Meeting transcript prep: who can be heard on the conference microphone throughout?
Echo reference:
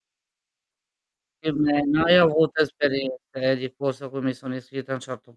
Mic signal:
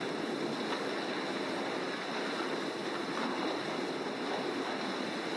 neither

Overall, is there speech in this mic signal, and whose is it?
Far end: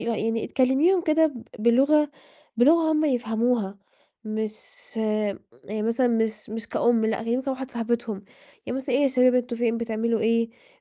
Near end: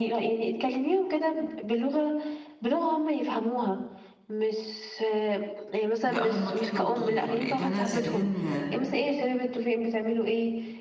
both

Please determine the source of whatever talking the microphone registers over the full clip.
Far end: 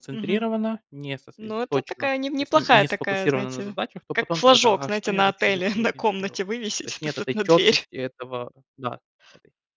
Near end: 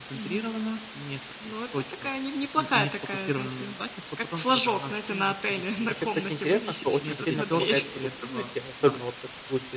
both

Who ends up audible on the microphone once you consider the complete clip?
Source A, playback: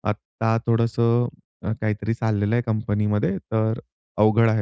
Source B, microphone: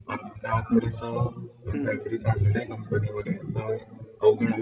both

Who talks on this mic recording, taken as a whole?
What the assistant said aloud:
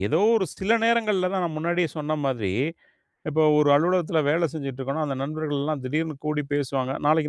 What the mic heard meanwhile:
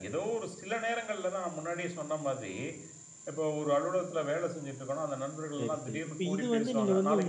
both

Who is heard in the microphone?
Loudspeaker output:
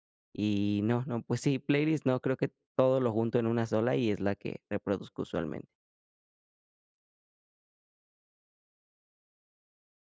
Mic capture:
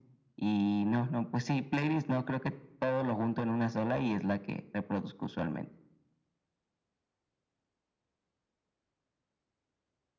echo only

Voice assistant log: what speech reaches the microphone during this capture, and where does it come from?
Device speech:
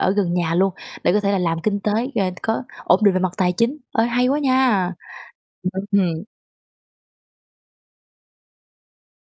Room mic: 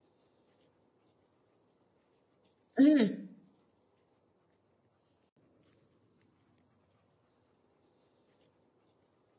user only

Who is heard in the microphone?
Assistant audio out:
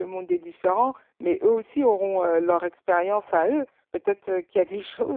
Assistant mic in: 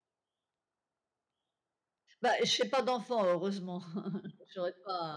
user only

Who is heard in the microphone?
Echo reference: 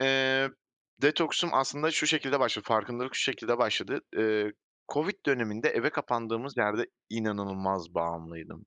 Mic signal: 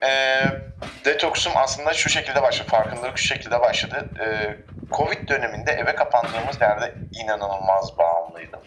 echo only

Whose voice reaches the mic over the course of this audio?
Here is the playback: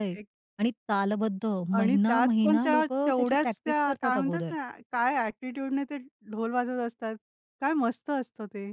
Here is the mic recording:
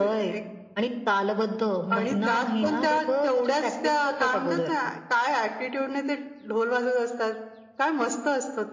echo only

